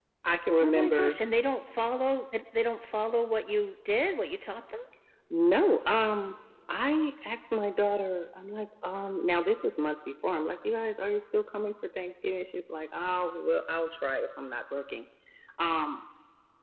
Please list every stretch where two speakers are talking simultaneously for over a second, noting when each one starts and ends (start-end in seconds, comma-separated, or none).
none